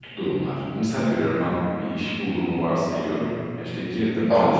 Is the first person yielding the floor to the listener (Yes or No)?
No